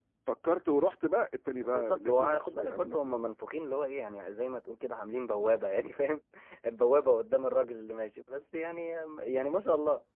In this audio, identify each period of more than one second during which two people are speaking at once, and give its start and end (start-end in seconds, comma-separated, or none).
1.6-3.2